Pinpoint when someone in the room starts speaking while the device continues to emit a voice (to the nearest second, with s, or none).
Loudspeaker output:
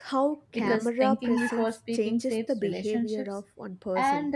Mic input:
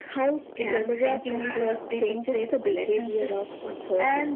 none